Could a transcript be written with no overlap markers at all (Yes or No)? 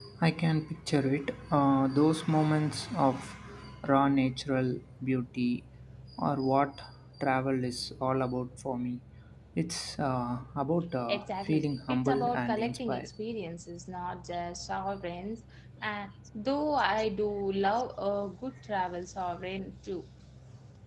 No